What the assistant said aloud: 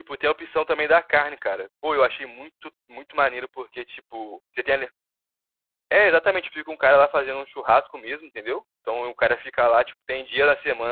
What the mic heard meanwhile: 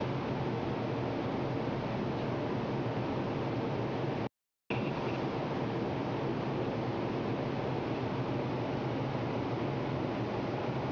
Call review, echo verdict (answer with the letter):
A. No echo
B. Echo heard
A